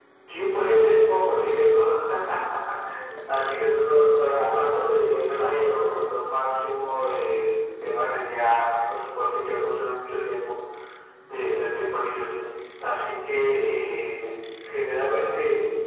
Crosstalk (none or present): present